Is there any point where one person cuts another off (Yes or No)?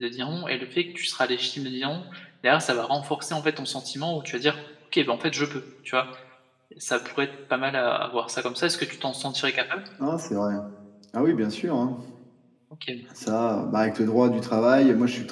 No